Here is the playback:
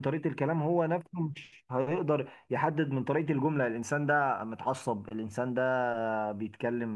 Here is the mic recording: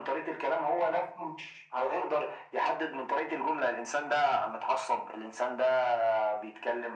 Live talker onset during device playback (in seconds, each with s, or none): none